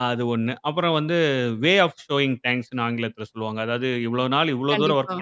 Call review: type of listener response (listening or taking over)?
listening